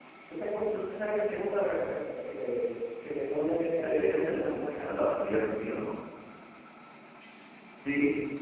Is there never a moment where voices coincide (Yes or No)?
No